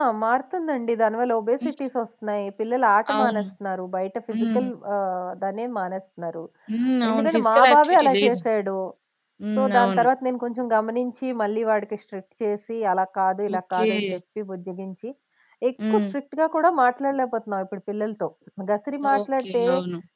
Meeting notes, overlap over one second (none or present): present